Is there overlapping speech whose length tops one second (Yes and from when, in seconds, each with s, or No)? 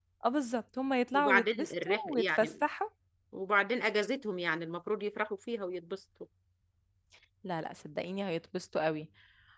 Yes, from 1.1 s